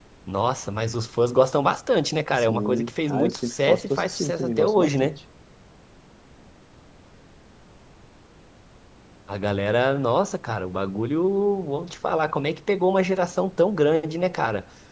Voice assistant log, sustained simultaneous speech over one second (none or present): present